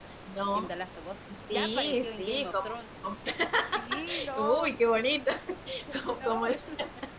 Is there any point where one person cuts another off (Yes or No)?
Yes